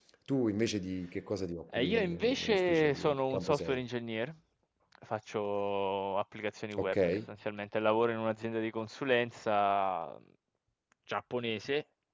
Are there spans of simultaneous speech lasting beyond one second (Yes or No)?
Yes